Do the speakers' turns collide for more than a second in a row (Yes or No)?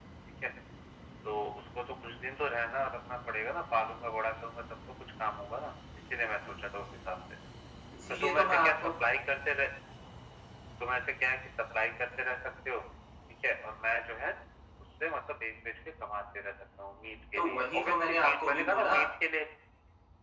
Yes